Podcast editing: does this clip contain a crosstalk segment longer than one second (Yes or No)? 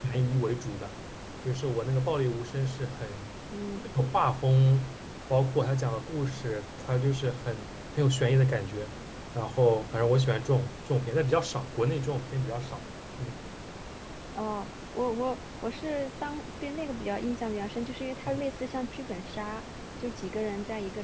No